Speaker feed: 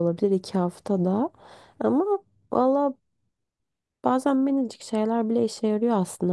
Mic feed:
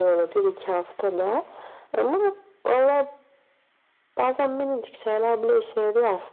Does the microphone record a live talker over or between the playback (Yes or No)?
No